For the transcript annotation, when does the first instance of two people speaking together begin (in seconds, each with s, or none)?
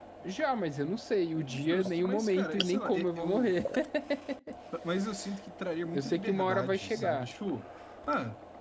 1.6 s